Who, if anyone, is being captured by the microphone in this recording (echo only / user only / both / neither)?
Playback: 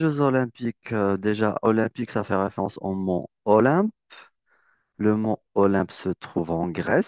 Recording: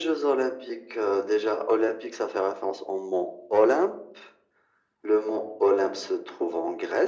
echo only